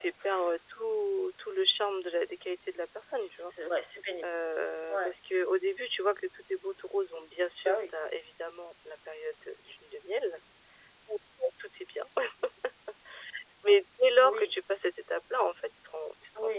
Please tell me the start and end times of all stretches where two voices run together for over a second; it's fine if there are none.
none

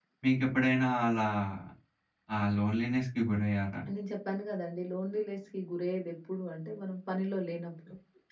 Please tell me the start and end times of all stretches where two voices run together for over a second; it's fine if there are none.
none

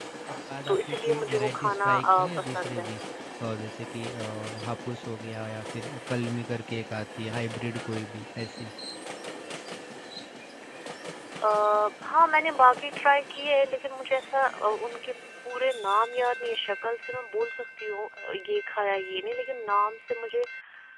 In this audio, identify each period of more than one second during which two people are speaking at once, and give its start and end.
0.7-2.9

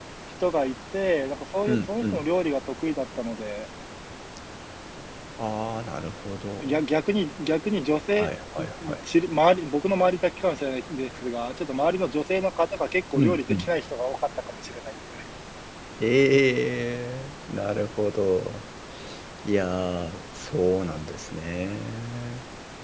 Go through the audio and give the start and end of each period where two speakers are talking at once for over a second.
none

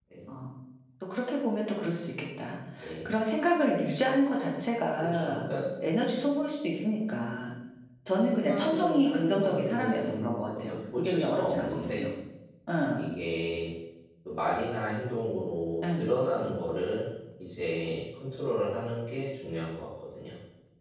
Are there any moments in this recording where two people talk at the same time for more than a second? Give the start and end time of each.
8.2-12.1

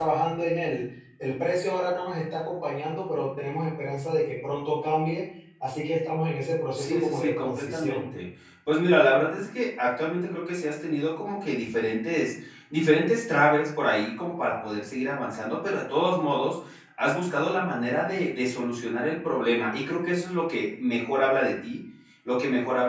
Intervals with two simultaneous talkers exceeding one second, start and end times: 6.8-8.0

